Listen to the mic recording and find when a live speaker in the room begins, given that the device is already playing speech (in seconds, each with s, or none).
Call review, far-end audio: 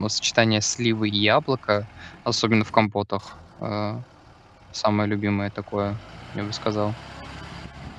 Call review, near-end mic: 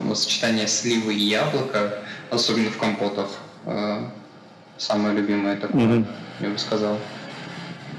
5.7 s